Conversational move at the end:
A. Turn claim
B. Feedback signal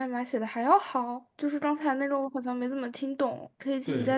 A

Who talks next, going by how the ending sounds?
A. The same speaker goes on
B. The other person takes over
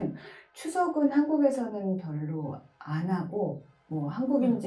A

